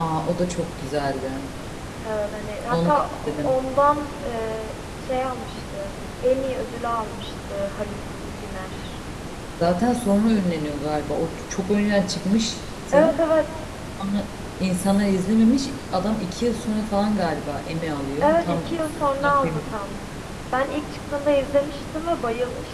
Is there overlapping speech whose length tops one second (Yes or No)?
Yes